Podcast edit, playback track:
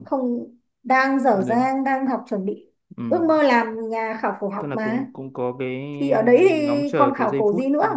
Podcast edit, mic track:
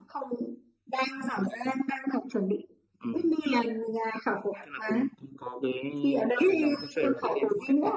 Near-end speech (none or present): present